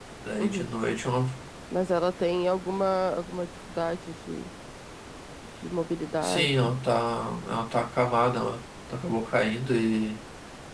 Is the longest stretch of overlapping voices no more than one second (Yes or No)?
Yes